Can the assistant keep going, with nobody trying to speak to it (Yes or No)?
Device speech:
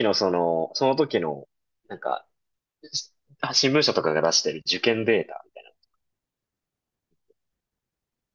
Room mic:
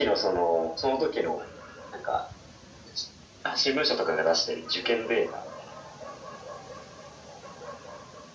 Yes